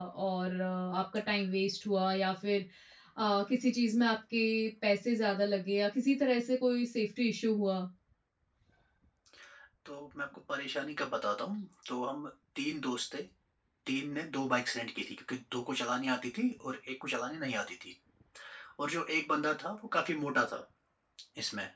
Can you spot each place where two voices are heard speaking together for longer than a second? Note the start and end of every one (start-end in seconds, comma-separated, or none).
none